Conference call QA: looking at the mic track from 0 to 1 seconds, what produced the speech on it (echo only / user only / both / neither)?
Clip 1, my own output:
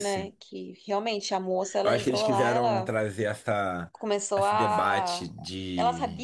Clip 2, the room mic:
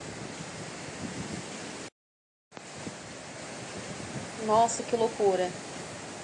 neither